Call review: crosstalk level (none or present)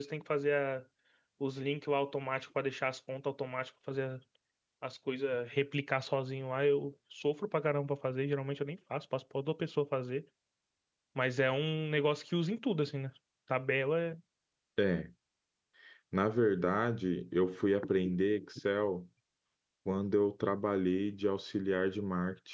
none